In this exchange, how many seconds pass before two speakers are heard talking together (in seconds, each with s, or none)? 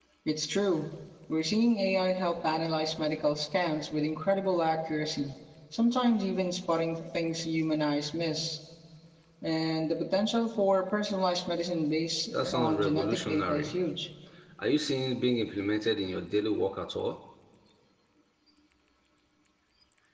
12.3 s